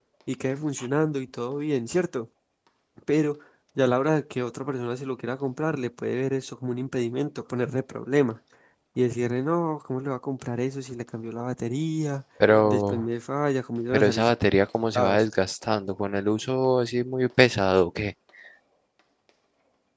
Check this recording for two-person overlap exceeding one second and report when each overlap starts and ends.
none

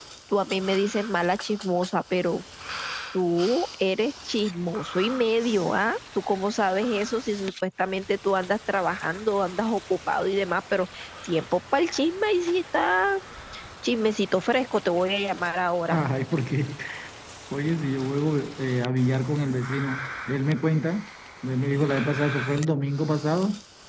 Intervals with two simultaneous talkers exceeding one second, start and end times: none

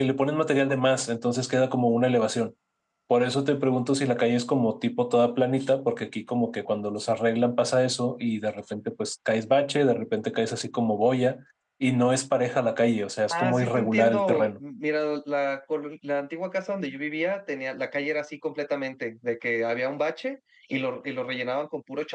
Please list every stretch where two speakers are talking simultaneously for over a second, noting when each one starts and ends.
13.3-14.5

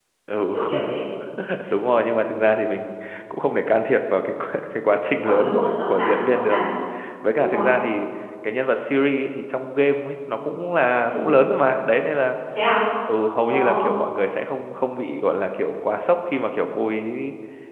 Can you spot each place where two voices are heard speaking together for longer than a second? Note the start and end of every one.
5.2-6.6

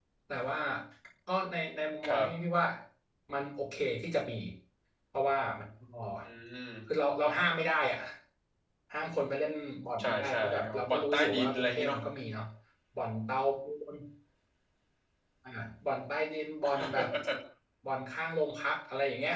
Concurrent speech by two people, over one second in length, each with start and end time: 10.0-12.0

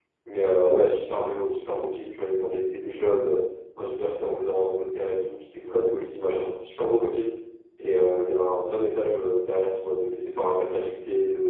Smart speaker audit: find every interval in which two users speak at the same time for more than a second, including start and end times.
none

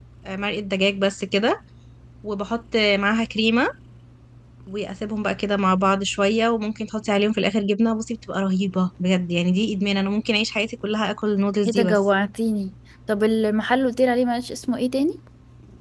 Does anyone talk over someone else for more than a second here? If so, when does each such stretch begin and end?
none

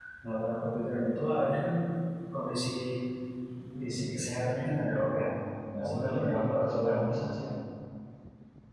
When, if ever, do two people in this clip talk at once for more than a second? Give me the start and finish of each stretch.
5.8-7.3

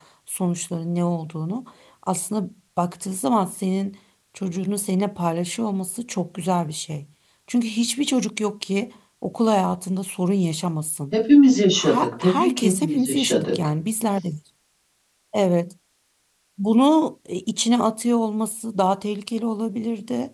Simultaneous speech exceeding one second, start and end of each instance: 11.8-13.5

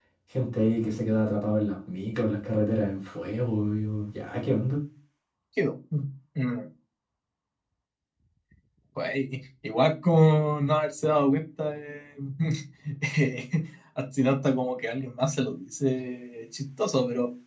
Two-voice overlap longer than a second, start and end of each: none

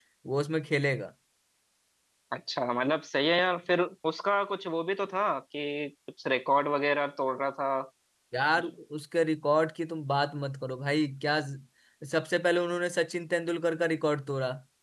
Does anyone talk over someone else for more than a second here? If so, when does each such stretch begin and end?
none

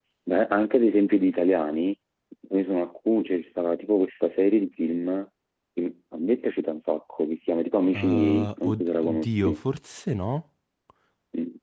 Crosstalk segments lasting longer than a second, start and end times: 7.9-9.6

